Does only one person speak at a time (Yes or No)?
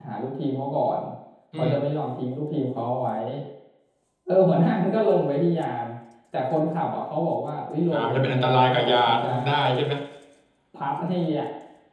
No